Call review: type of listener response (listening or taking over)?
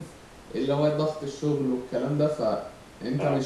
listening